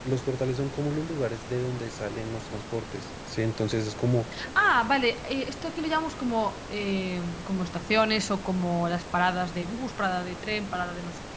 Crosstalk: none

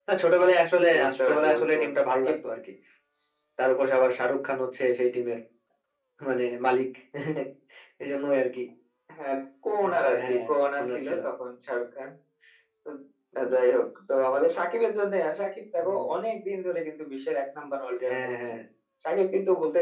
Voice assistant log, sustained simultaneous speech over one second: present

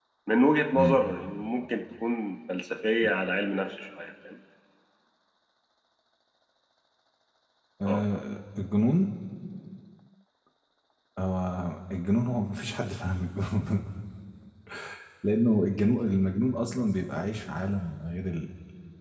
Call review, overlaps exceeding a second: none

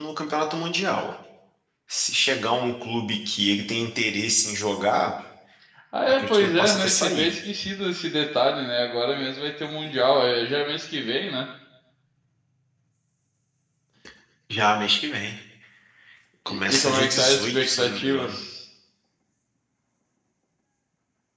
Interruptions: present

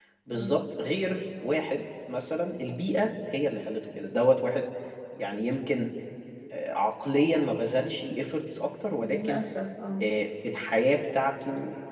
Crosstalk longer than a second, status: none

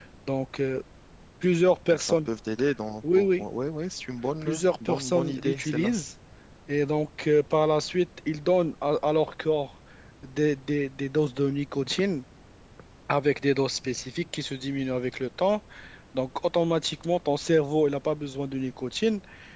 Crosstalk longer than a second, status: present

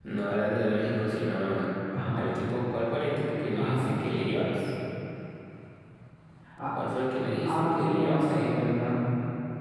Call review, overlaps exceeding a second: present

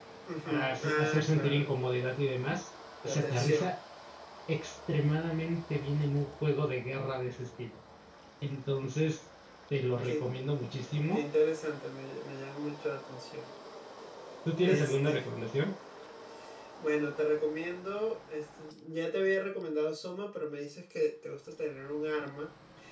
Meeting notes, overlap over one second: present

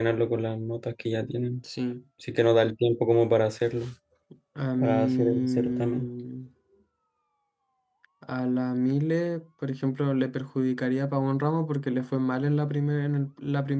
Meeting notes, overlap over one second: present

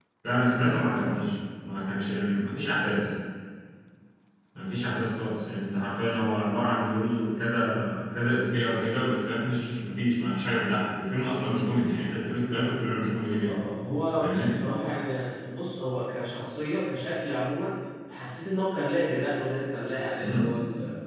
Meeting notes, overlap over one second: none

